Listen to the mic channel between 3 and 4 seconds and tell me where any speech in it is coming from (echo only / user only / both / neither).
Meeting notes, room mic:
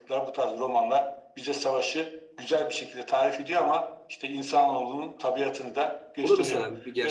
echo only